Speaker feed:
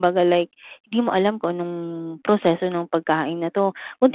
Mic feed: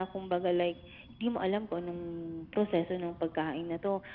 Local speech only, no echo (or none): none